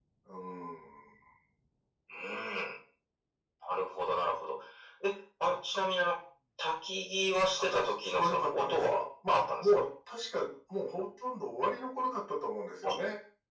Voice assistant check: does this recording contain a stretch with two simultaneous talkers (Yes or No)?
Yes